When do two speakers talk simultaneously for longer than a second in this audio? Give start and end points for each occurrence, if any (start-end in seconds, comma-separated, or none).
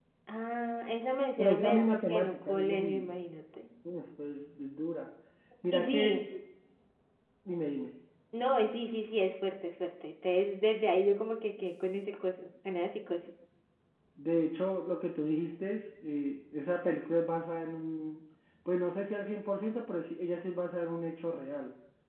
1.4-3.1